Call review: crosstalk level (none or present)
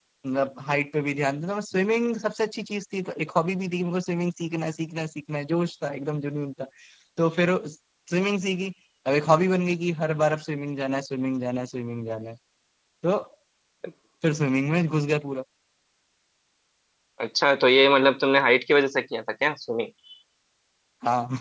none